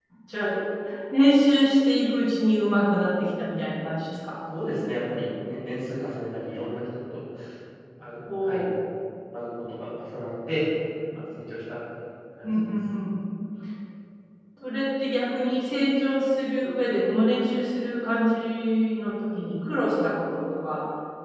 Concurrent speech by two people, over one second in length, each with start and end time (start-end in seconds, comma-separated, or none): none